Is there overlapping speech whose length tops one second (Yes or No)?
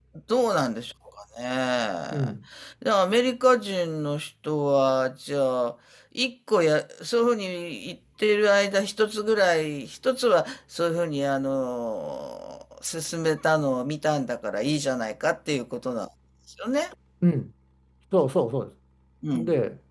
No